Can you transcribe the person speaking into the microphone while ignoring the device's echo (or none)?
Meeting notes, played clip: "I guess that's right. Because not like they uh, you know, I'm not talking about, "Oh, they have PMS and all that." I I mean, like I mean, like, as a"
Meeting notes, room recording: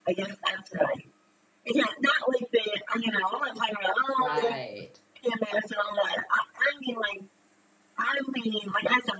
Right.